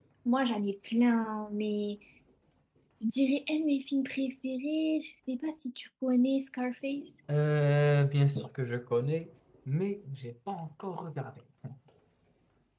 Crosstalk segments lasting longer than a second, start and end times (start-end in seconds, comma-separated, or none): none